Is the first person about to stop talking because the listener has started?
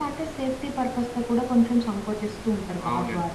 Yes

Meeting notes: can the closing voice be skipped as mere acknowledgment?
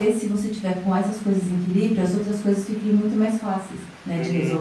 No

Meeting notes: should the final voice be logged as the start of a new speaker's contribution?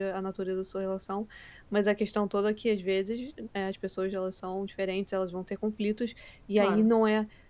No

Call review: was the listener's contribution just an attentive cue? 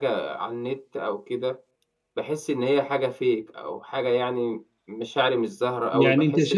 No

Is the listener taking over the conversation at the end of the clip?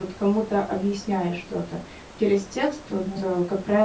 No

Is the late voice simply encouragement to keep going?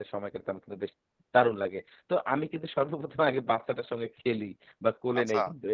Yes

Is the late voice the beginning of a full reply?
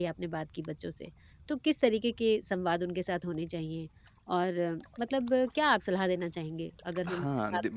Yes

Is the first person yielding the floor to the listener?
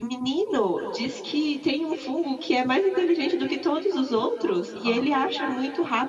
No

